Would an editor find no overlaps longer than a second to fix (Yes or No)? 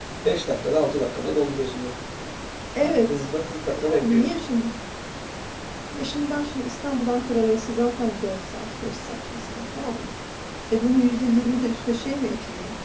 Yes